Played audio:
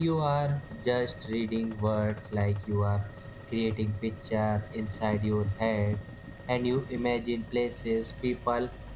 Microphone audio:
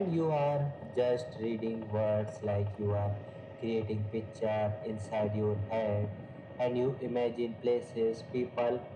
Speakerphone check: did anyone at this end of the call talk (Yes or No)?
No